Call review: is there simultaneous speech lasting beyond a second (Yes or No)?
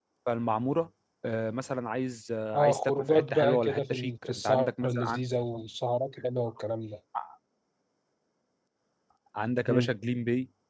Yes